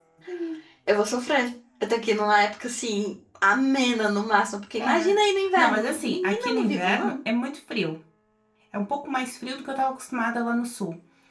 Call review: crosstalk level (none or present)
present